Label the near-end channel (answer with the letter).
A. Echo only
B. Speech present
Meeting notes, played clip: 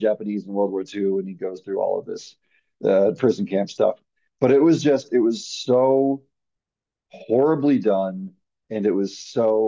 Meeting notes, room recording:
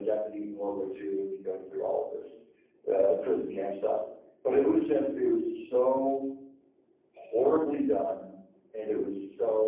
A